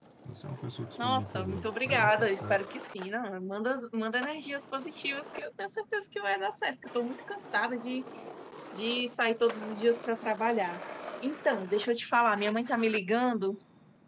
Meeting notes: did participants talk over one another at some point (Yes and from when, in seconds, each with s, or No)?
Yes, from 1.0 s